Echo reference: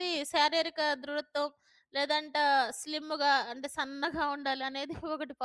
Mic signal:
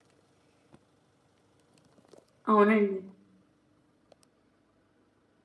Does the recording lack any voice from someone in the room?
No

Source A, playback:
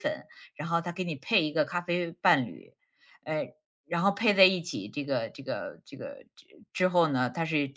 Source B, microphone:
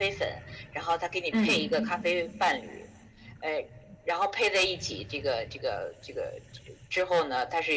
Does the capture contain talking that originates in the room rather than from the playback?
Yes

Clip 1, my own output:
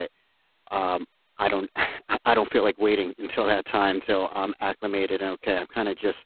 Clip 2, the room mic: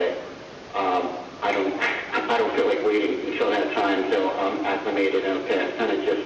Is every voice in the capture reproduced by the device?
Yes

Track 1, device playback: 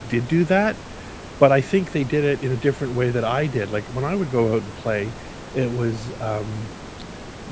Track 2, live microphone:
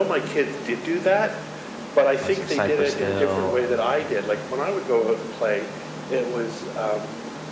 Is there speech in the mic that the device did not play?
Yes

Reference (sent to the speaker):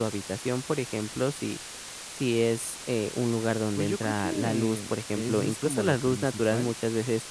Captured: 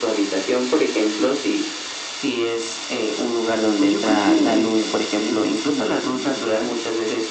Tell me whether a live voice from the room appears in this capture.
No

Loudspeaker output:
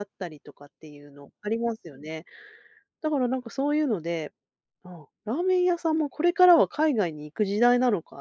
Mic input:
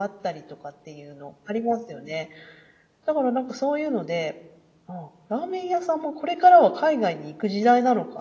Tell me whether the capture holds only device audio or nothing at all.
Yes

